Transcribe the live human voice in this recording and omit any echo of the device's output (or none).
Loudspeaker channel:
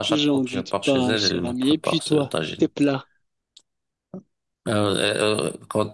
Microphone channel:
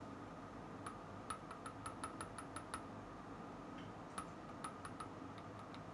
none